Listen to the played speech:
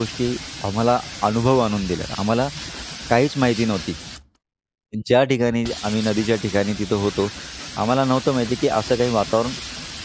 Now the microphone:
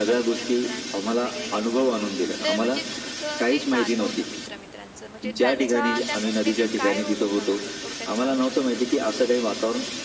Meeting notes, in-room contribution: present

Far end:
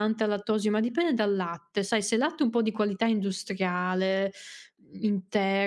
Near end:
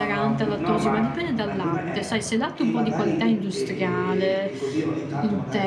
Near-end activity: present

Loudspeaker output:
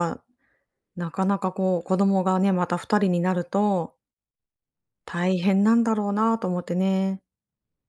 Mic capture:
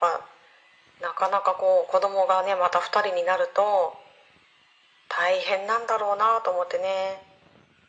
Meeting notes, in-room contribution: none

